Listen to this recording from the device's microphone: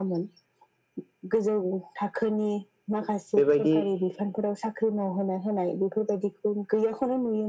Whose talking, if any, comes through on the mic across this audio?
both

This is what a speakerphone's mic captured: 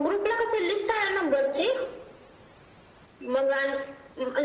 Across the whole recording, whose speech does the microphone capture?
echo only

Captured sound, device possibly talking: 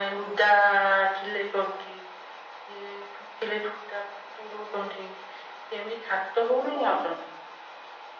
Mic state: echo only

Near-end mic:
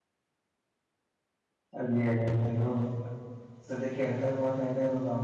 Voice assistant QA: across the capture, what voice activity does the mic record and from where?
user only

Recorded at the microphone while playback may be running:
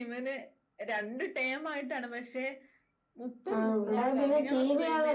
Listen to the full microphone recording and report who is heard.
both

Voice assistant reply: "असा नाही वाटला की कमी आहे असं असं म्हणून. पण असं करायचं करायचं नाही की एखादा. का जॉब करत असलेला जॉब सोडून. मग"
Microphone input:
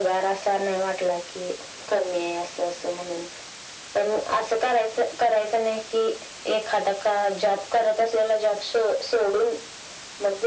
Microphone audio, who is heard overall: echo only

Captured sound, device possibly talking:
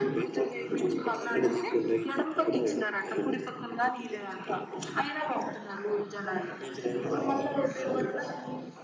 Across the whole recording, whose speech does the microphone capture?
echo only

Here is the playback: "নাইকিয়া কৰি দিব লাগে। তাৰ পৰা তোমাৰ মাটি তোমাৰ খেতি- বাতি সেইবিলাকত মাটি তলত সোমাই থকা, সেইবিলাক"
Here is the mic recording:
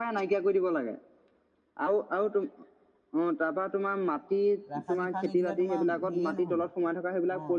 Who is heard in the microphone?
both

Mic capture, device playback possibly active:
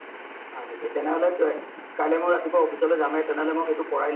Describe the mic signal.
echo only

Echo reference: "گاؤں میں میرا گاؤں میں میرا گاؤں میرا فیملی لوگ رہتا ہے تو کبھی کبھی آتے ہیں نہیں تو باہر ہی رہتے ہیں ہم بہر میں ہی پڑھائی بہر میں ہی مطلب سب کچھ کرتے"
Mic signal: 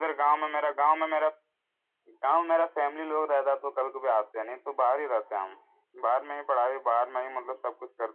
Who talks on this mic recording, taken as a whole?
echo only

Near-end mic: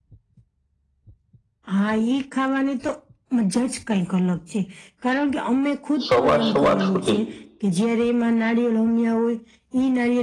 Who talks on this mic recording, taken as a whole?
both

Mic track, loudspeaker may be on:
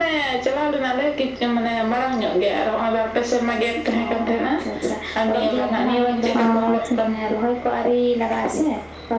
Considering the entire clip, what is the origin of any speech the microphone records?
both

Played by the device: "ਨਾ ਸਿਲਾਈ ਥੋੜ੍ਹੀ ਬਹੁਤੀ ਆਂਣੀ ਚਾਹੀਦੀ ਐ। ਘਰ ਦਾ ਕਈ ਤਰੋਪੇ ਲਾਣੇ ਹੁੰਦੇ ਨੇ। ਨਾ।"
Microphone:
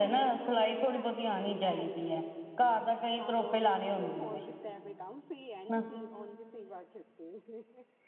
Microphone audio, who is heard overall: both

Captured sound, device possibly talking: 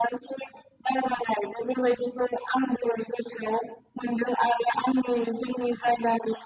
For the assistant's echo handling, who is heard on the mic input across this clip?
echo only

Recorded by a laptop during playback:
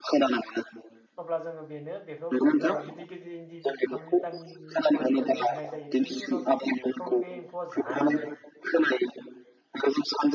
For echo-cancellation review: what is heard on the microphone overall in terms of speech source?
both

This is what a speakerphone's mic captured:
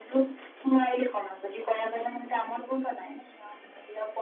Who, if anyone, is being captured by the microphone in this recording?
echo only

